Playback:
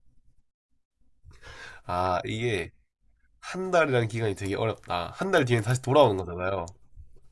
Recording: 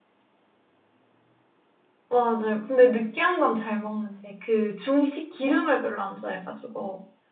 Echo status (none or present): none